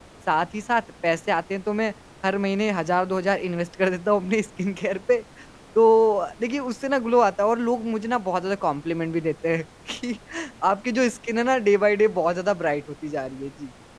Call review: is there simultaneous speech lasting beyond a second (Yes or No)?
No